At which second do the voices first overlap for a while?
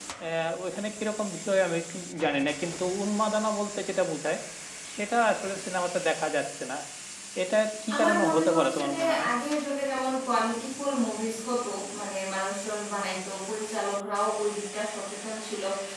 7.9 s

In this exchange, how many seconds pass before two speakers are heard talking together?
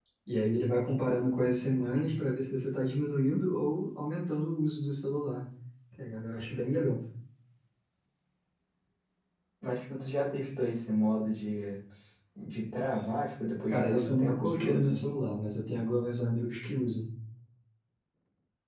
13.7 s

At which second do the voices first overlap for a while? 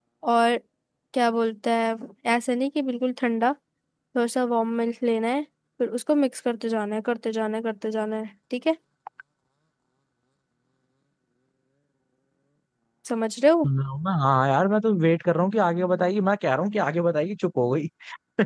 none

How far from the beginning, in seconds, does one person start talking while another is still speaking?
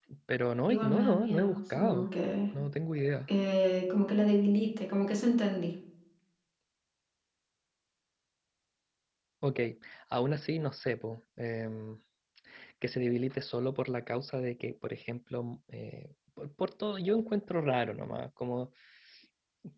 0.7 s

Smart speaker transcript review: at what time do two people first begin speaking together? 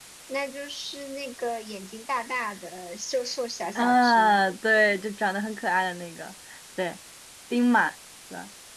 3.8 s

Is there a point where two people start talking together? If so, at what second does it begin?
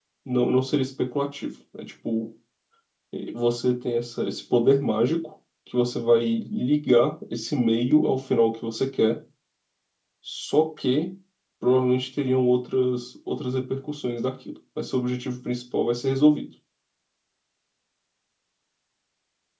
none

